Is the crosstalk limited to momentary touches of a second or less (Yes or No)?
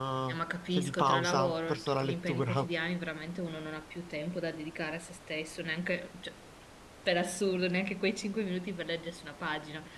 No